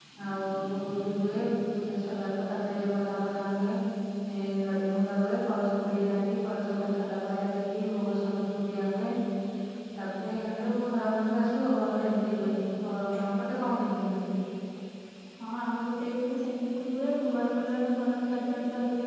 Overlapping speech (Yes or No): No